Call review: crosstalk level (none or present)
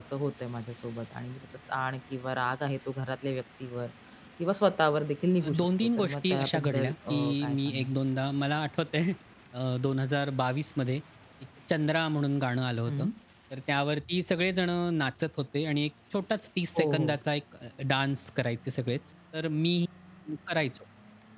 present